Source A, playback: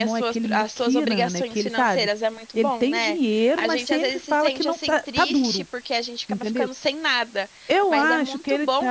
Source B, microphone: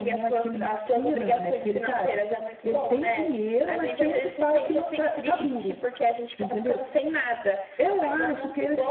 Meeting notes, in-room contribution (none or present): present